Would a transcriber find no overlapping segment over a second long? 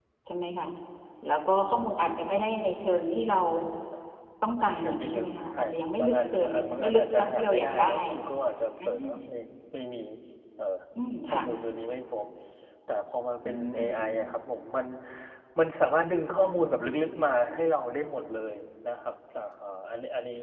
No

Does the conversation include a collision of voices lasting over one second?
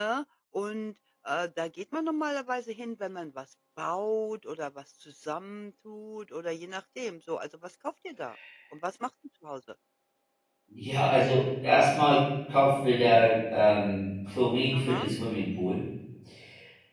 No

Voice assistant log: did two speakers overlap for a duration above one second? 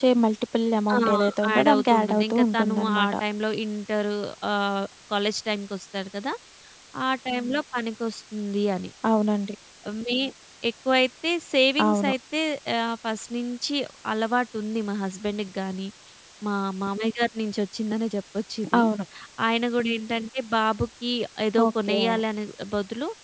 Yes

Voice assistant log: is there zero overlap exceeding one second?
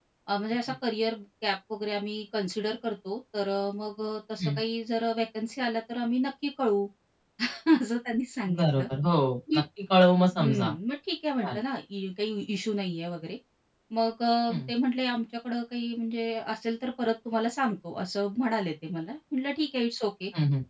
Yes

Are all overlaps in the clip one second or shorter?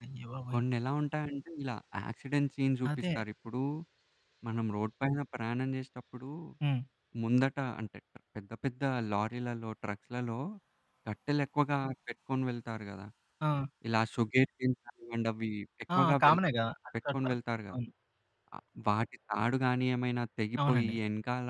Yes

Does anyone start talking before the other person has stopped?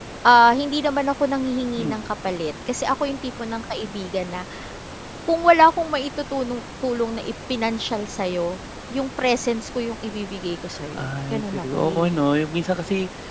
Yes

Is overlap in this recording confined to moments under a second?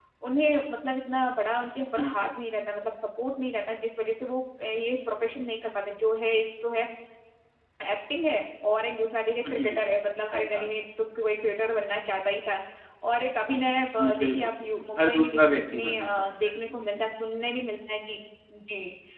No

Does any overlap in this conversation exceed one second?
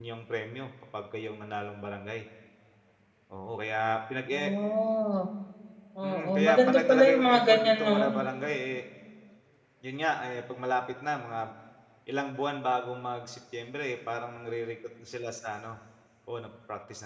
Yes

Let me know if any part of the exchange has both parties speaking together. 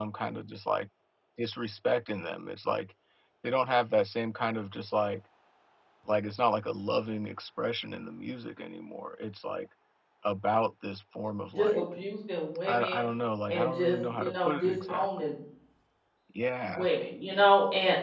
Yes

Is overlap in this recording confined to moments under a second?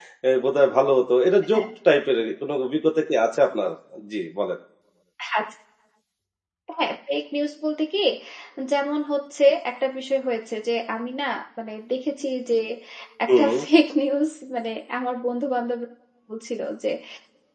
Yes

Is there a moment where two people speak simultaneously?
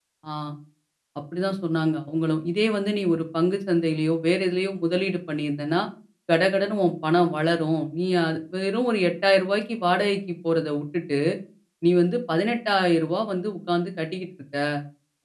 No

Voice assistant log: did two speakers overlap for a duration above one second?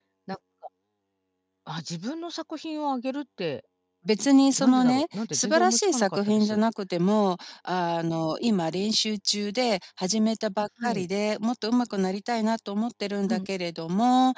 Yes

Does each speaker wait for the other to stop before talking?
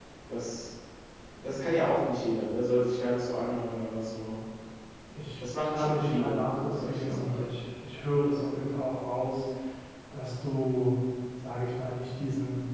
No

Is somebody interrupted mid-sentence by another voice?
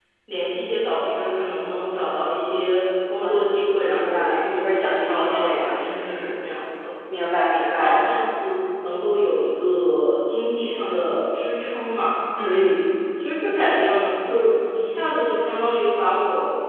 Yes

